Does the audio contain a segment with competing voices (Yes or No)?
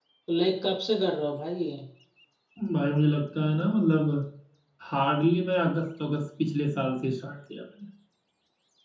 No